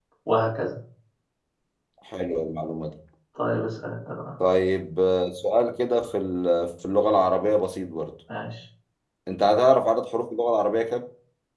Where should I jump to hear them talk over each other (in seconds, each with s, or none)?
none